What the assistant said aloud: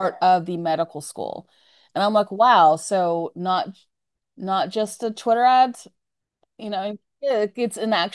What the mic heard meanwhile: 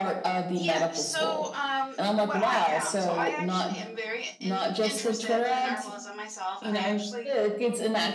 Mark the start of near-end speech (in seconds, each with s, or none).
0.5 s